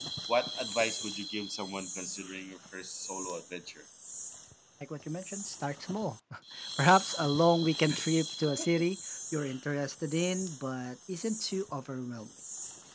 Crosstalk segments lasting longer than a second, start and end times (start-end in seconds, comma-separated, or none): none